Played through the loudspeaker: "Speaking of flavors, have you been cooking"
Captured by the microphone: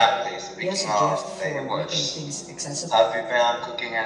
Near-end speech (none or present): present